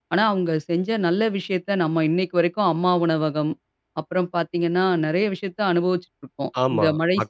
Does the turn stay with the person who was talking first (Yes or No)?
No